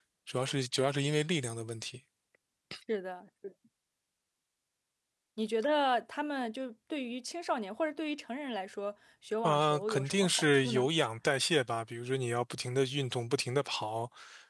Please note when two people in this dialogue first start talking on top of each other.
9.4 s

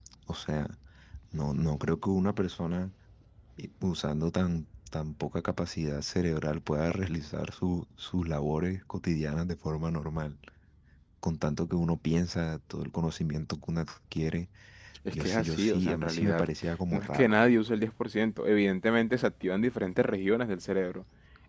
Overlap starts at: 15.1 s

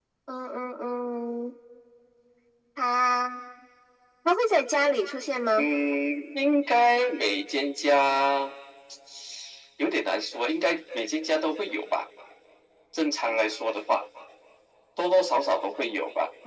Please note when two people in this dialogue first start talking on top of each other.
none

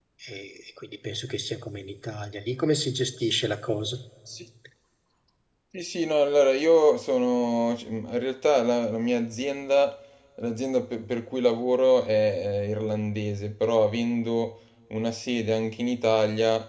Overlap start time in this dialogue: none

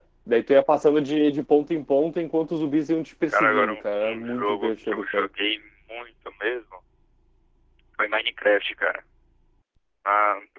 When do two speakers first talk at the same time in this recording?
3.3 s

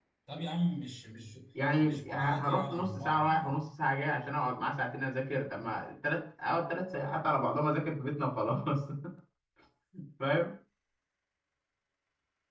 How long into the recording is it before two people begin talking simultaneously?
1.8 s

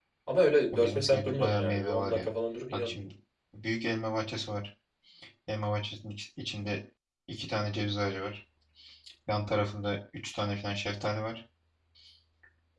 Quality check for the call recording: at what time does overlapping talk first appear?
0.7 s

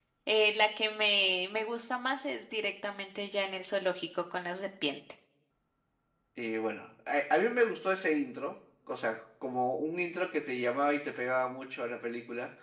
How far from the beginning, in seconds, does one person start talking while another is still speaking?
none

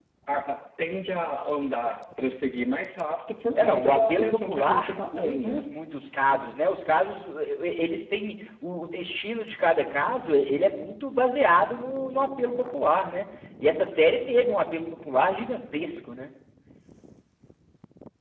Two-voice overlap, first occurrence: 3.5 s

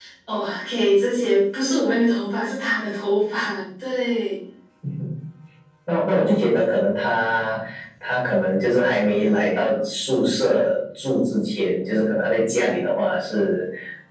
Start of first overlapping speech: none

